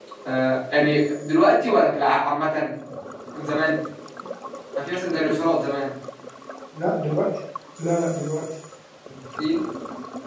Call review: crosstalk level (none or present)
none